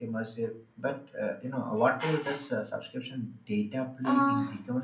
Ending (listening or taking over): taking over